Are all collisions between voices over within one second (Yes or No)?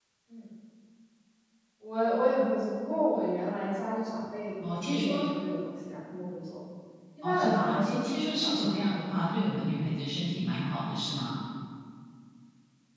No